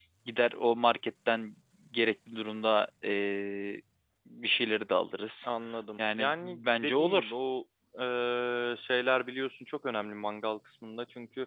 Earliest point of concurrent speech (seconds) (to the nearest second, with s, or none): 6 s